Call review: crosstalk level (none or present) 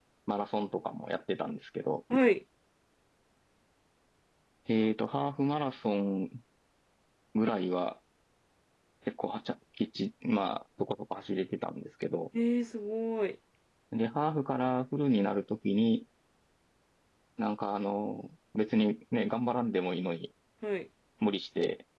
none